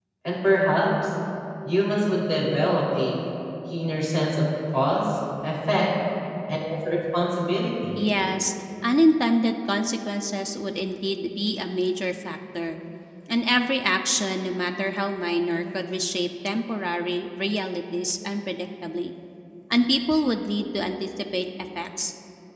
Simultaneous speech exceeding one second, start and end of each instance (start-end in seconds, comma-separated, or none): none